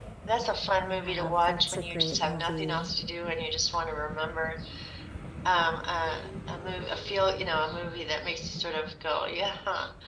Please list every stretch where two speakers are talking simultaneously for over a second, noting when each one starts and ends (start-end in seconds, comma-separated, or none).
0.9-2.9